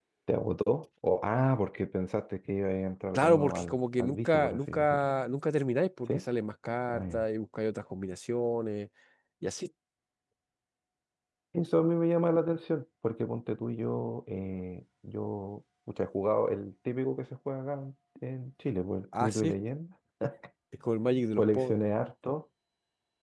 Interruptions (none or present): present